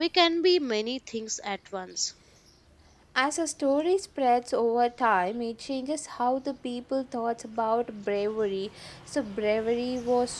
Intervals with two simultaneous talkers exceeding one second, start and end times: none

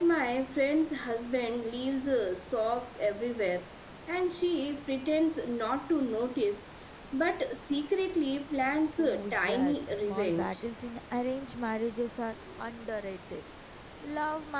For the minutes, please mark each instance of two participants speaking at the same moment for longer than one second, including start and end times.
9.0-10.6

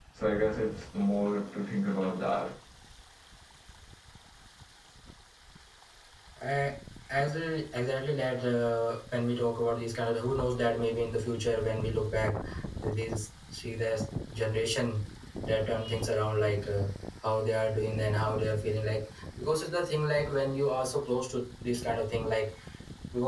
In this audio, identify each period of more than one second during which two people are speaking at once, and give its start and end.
none

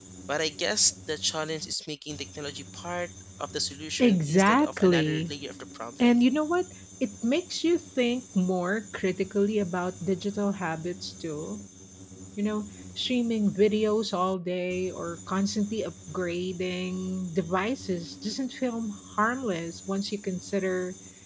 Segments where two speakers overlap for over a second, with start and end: 4.0-5.3

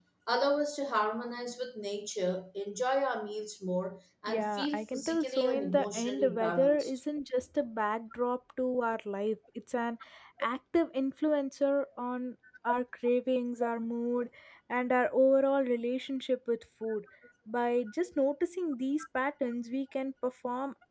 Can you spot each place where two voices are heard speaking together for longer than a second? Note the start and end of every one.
4.3-7.0

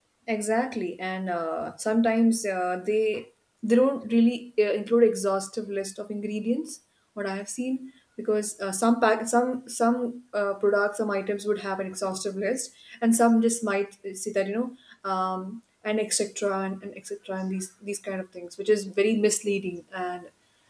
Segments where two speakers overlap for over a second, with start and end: none

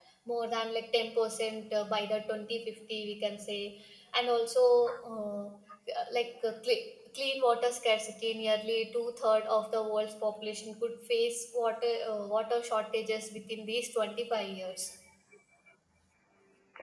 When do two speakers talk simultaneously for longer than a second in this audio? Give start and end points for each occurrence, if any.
none

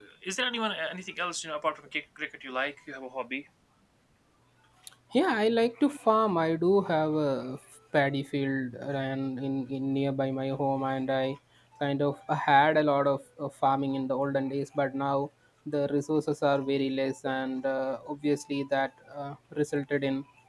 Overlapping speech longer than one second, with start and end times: none

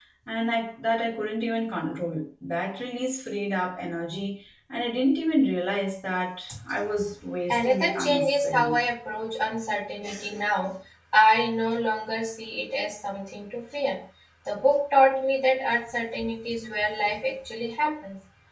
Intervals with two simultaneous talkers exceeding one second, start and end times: 7.5-8.7

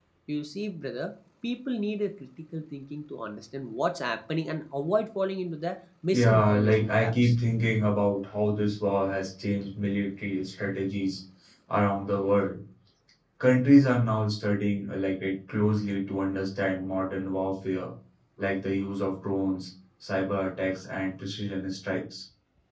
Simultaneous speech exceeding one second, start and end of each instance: 6.1-7.4

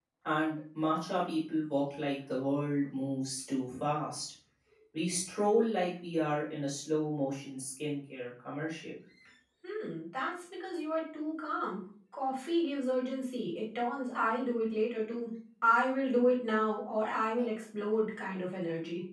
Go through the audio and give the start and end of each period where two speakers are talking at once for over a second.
none

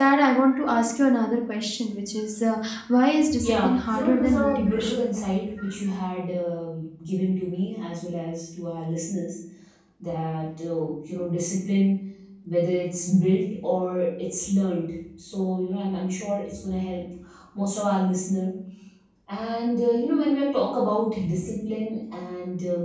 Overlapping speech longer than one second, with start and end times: 3.4-5.0

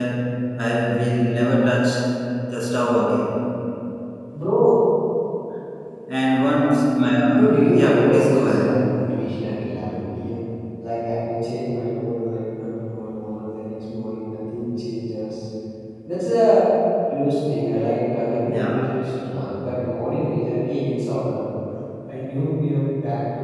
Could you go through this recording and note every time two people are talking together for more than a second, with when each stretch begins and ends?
7.3-9.0

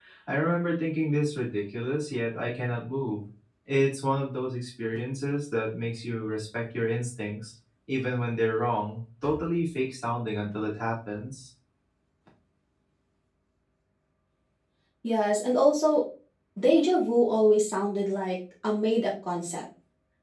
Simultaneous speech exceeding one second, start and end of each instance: none

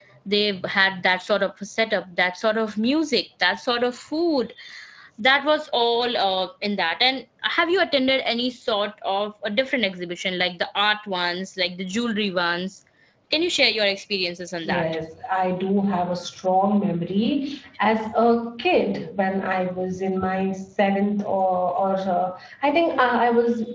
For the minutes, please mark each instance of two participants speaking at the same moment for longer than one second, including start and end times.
none

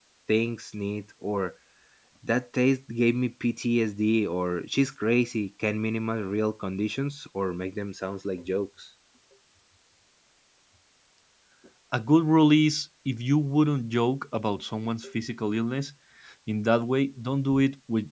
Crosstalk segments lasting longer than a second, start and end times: none

